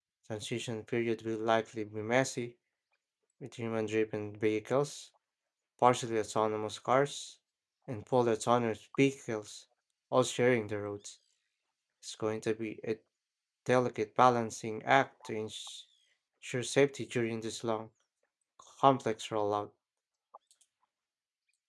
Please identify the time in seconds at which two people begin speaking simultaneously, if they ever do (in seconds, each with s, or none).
none